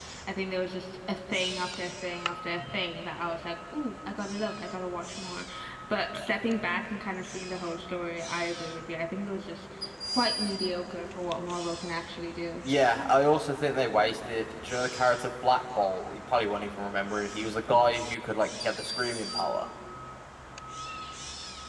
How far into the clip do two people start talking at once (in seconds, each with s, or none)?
none